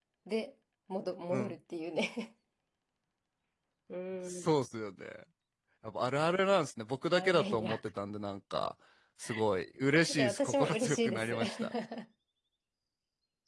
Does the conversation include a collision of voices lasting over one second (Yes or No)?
Yes